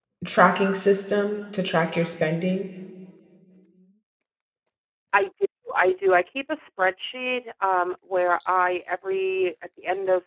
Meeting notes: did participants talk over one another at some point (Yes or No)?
No